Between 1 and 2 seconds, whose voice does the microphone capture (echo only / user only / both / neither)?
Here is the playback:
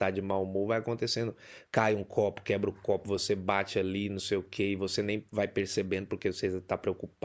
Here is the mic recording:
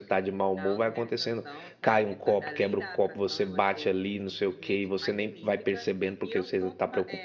both